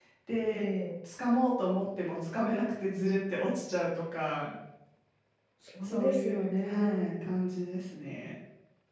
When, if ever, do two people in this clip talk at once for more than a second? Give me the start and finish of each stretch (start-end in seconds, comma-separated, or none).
5.8-7.1